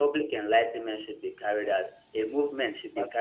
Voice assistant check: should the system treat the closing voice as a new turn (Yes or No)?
No